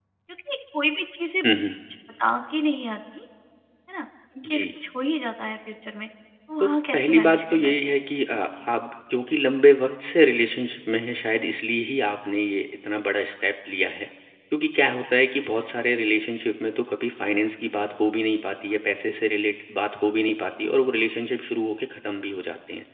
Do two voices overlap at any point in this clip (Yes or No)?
Yes